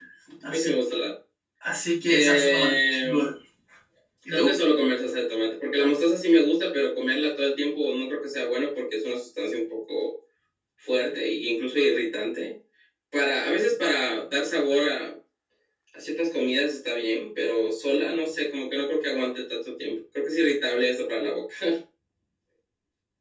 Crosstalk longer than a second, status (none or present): present